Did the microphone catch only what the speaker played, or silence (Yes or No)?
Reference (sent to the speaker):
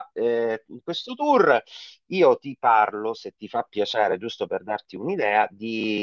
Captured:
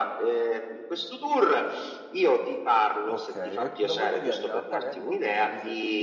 No